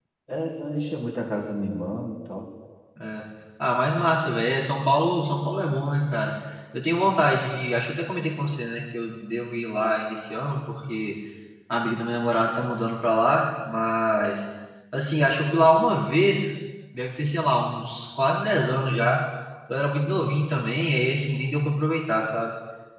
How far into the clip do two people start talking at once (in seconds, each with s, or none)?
none